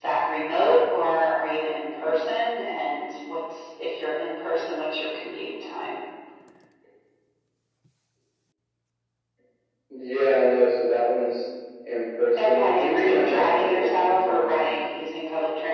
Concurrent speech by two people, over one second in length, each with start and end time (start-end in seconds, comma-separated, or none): 12.4-14.7